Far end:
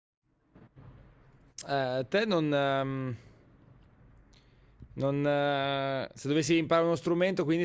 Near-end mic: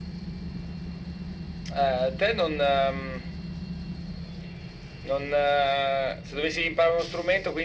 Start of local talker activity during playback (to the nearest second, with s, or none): none